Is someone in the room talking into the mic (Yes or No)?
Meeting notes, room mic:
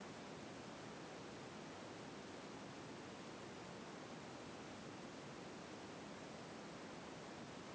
No